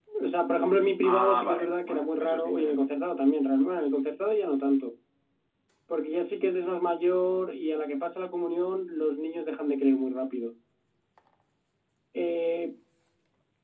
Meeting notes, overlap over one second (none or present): present